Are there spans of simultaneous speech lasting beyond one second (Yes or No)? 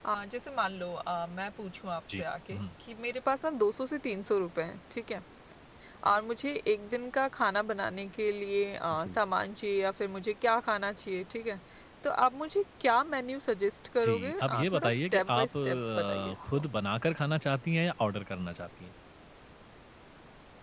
Yes